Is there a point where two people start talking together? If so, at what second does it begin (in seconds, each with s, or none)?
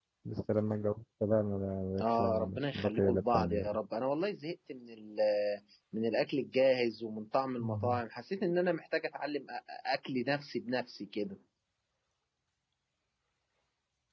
2.0 s